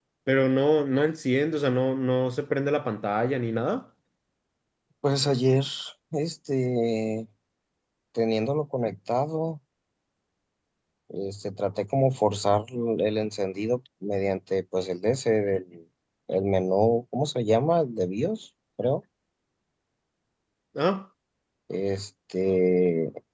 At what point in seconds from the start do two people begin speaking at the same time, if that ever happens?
none

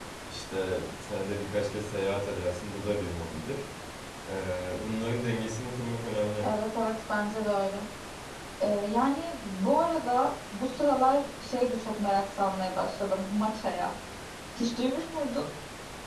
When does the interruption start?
none

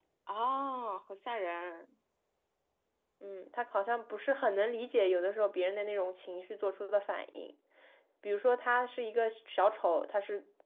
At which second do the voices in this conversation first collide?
none

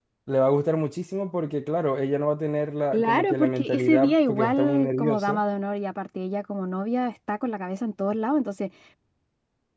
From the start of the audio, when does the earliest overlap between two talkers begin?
3 s

